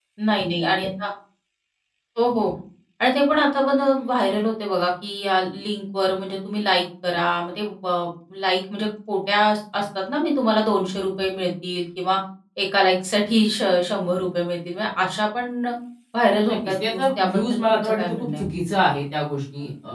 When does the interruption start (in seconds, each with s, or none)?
16.5 s